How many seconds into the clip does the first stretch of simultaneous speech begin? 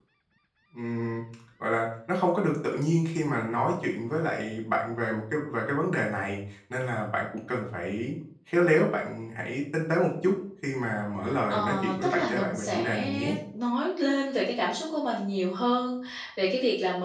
11.5 s

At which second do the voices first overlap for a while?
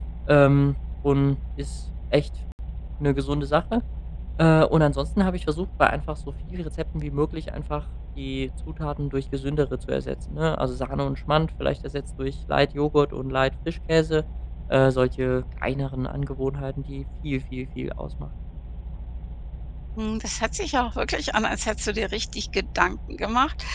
none

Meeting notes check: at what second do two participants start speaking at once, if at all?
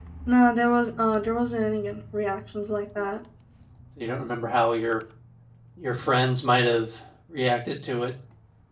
none

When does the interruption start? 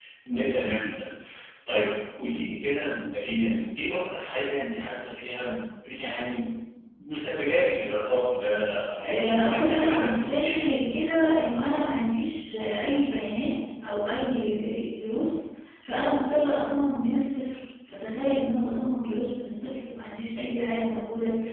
9.0 s

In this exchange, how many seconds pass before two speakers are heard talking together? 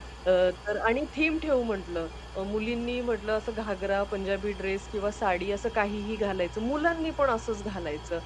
none

